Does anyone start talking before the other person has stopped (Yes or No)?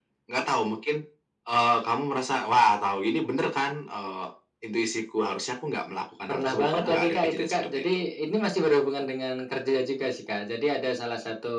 Yes